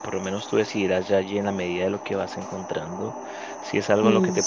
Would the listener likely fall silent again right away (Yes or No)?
Yes